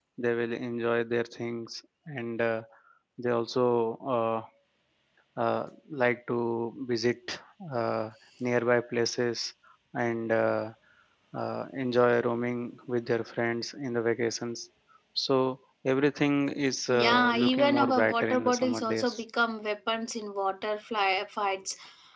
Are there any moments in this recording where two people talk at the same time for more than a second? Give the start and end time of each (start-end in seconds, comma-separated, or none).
16.9-19.2